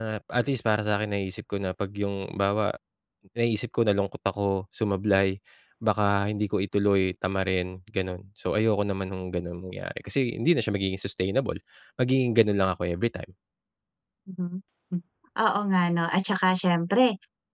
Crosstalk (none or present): none